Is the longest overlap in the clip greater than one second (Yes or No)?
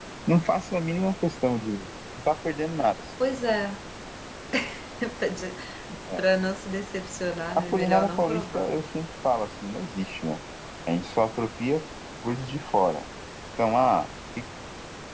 Yes